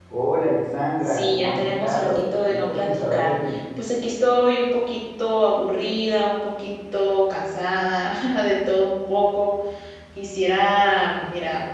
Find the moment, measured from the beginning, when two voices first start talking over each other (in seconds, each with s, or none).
1.1 s